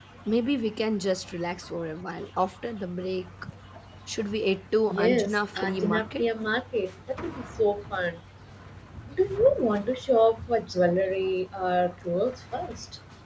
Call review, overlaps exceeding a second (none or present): present